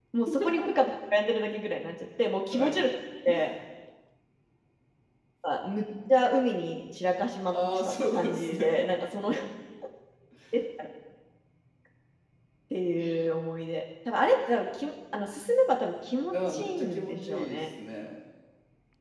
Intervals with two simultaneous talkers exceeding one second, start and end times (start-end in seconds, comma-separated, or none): 7.5-8.9, 16.3-17.6